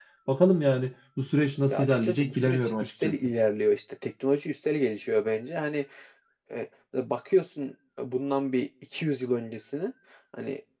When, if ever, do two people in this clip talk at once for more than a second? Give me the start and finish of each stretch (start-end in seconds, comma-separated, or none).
1.7-3.3